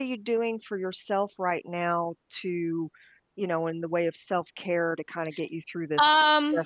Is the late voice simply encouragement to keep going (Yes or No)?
No